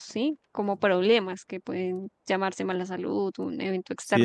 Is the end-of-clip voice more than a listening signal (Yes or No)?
Yes